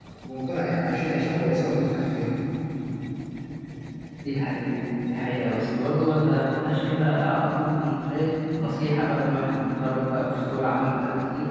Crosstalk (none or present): none